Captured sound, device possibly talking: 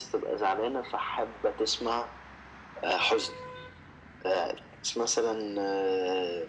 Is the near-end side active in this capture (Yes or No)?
No